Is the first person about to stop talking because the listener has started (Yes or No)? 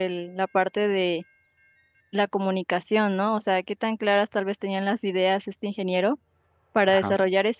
No